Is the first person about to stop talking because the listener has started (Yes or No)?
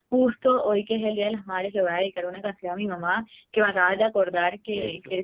No